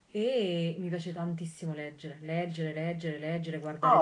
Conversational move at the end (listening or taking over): taking over